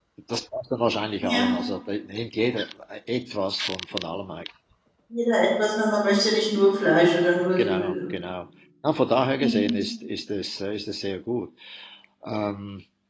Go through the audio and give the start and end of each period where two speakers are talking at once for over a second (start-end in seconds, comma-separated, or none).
none